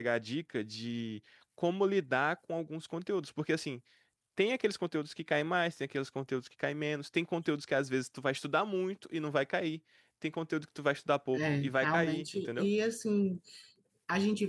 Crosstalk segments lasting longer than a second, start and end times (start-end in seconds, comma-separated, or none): 11.3-12.7